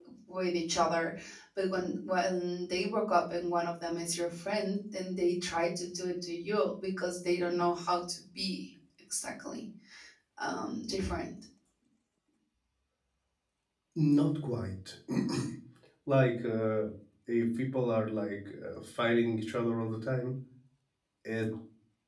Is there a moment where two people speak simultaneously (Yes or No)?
No